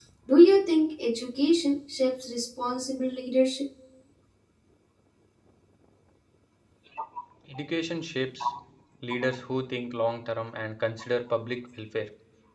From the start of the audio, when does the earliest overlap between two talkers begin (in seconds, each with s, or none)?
none